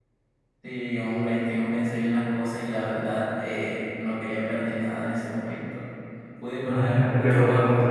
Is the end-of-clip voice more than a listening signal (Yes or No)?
Yes